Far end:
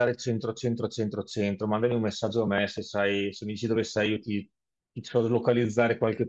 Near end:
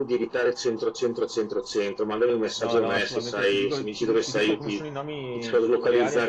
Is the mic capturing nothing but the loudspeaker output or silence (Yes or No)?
No